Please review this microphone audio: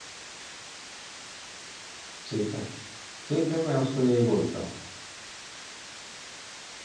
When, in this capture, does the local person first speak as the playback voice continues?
2.3 s

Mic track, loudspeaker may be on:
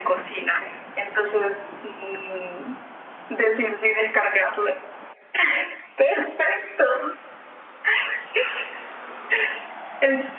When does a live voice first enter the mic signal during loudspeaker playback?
none

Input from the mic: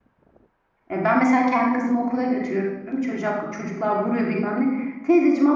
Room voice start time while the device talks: 0.9 s

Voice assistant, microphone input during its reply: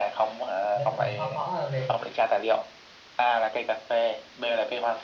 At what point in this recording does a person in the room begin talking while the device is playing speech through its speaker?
0.7 s

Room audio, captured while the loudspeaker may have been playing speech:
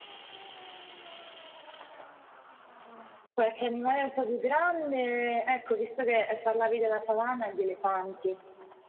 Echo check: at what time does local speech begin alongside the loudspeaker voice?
3.3 s

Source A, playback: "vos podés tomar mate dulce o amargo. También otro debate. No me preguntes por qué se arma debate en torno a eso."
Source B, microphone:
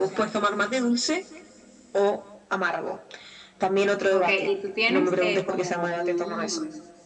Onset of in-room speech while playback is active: 4.1 s

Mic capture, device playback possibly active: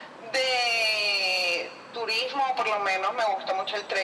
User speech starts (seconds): none

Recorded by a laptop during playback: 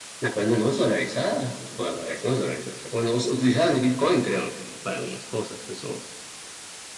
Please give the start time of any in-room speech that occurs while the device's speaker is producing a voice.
none

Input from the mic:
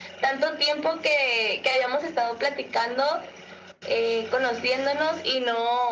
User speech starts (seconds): none

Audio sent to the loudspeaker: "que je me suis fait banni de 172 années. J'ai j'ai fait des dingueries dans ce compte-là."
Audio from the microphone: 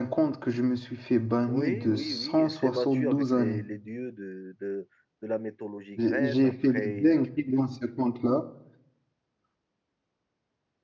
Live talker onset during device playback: 1.5 s

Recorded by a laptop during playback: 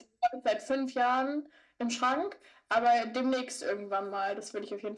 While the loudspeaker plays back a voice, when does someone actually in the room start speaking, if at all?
none

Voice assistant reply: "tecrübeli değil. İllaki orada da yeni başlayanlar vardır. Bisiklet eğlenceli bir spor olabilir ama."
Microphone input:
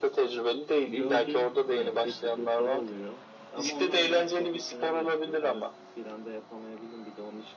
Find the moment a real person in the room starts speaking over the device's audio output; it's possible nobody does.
0.8 s

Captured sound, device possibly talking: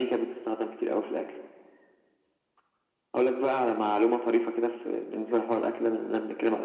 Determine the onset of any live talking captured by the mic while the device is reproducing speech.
none

